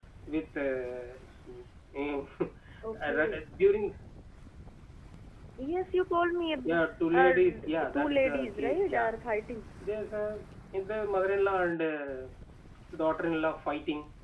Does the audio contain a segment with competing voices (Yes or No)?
Yes